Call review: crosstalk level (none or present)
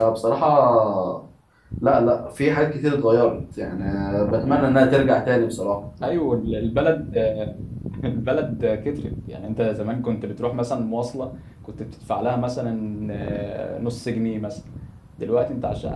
none